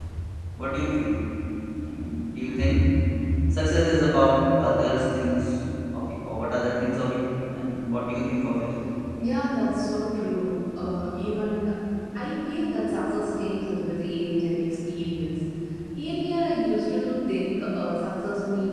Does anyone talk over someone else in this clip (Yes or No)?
No